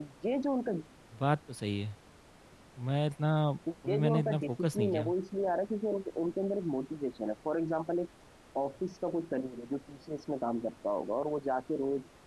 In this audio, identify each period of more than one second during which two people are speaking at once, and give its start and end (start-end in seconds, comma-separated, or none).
3.9-5.1